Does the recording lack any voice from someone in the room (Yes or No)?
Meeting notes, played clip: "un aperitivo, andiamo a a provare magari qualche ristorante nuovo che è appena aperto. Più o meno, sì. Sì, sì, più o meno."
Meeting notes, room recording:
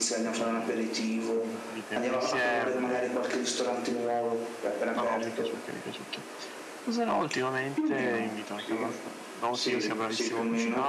No